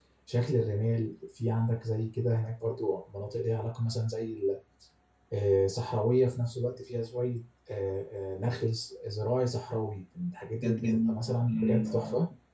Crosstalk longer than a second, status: present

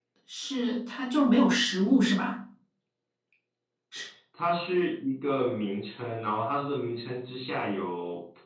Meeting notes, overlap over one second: none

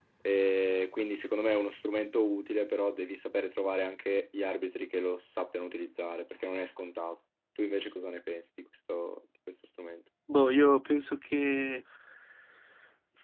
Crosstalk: none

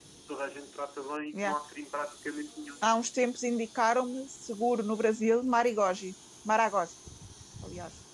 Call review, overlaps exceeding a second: none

